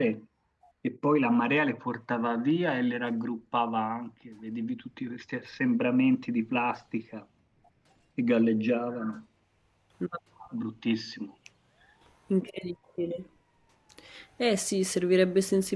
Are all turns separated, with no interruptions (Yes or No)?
Yes